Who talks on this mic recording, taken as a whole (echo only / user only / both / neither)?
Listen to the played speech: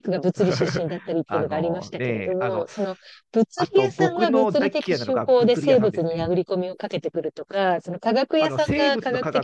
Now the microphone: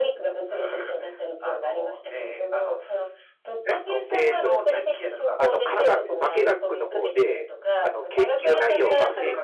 both